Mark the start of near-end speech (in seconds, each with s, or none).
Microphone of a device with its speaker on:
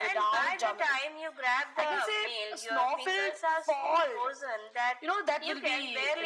none